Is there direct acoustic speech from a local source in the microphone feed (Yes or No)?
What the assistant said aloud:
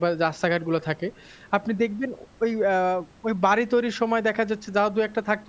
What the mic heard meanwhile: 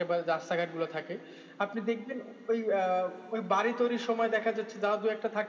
No